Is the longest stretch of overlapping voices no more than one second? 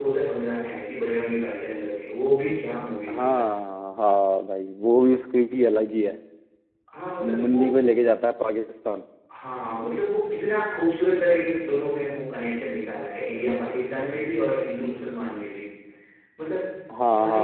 Yes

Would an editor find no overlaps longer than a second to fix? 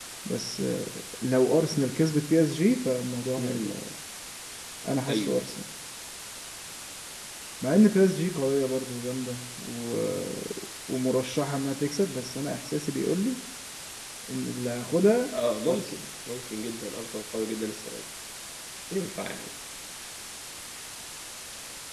Yes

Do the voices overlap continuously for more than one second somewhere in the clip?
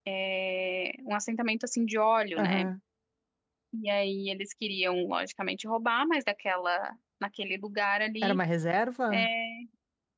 No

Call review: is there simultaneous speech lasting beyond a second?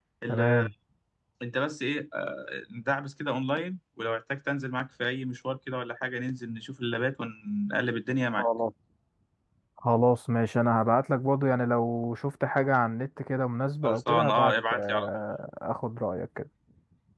Yes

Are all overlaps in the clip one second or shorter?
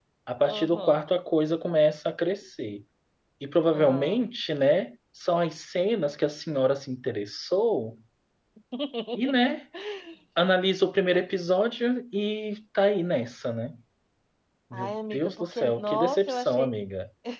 No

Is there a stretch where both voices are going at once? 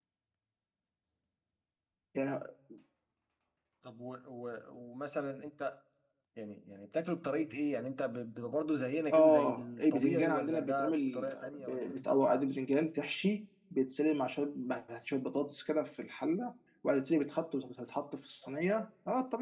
Yes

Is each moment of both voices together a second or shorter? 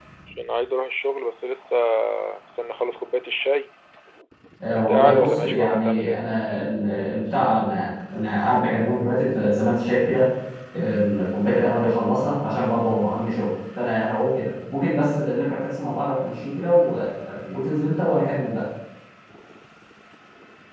No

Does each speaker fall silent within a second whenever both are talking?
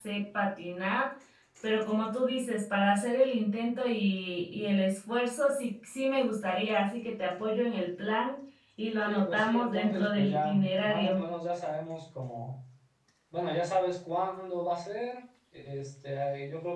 No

